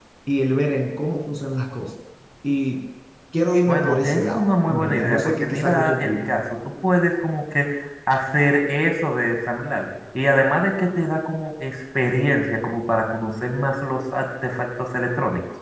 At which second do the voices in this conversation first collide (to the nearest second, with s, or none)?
4 s